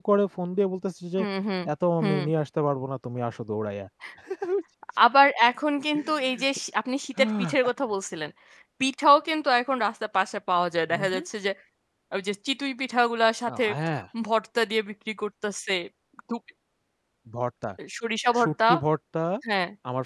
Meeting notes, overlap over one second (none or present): none